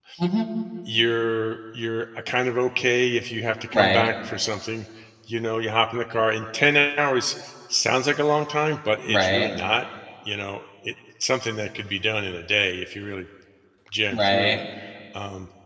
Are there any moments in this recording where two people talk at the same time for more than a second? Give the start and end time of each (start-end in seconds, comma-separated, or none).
none